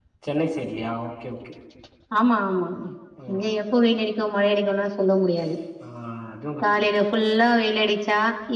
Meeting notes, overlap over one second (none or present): none